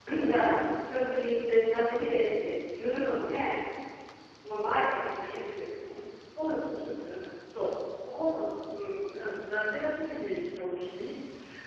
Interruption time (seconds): none

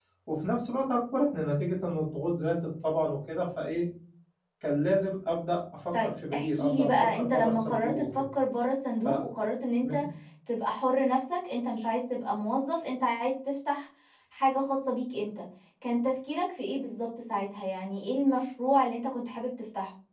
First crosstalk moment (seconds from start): 6 s

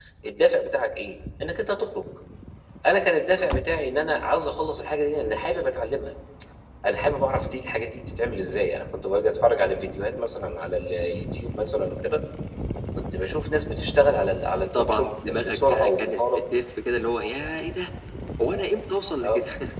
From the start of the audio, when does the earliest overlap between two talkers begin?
15 s

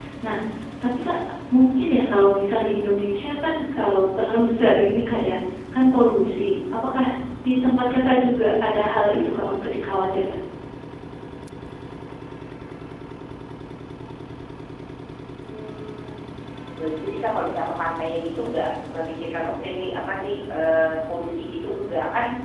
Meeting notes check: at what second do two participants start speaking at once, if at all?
none

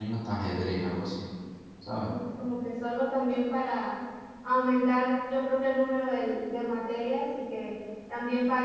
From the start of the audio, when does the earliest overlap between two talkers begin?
none

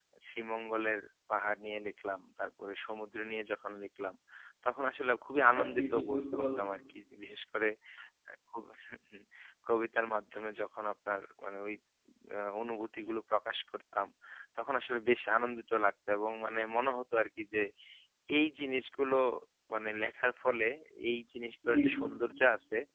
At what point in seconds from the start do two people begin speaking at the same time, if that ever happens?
5 s

